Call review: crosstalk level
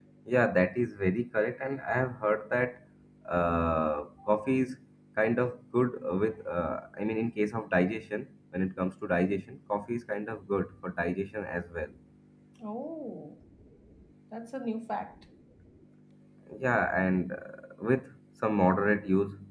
none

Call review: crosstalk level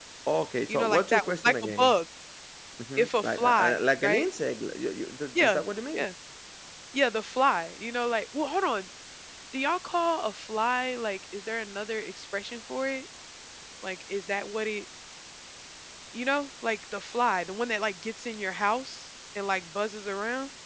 present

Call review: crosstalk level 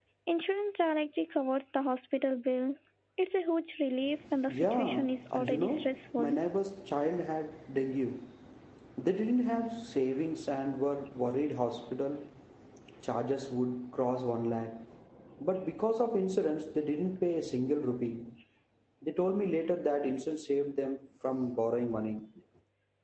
present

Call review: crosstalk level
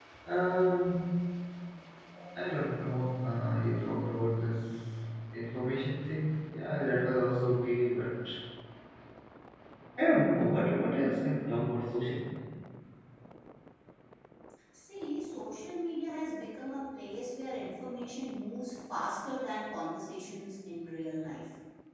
none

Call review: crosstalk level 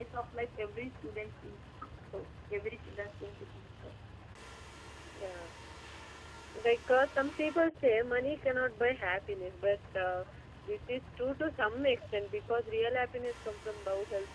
none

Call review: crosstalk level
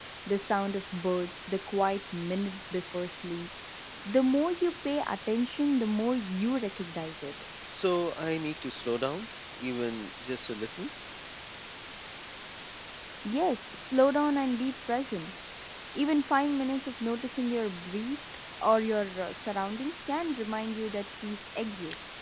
none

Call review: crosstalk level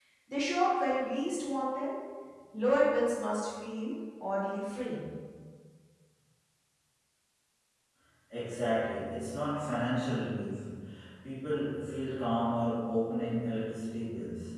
none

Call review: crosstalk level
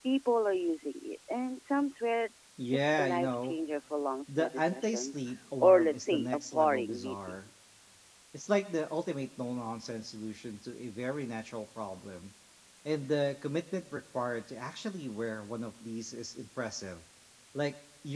present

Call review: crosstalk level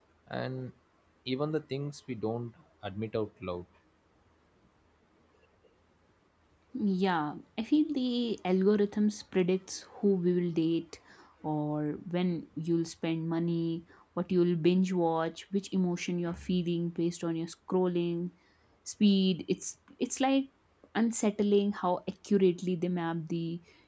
none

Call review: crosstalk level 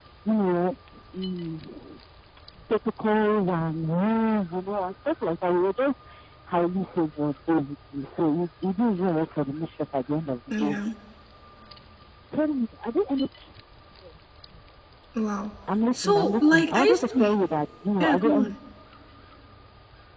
present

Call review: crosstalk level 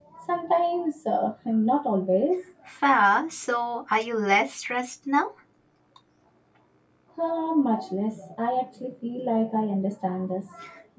none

